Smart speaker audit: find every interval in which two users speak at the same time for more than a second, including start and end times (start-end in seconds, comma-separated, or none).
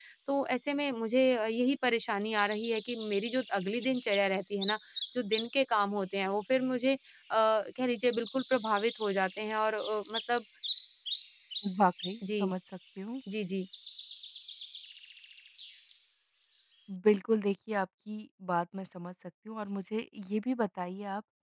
none